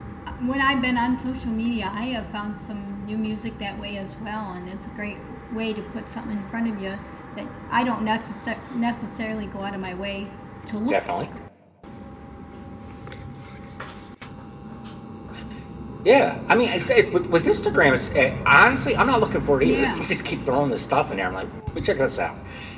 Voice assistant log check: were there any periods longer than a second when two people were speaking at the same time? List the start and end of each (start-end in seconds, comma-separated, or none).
none